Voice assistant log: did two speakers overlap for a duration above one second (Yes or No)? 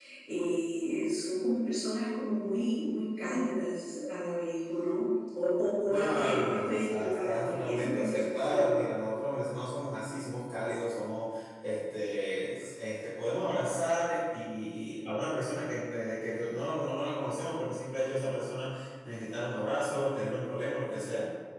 Yes